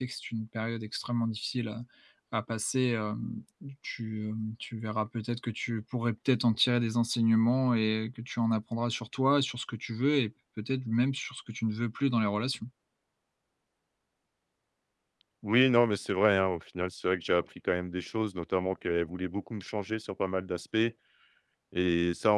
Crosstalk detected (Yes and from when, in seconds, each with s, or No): No